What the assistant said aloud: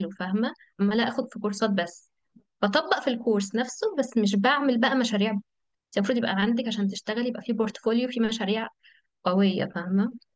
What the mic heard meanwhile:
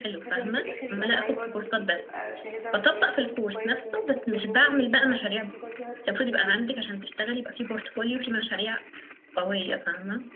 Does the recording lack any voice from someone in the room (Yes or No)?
No